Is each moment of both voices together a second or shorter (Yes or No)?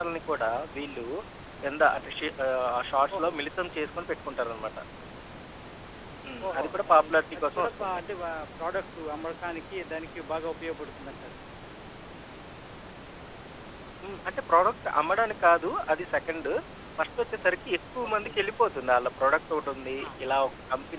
No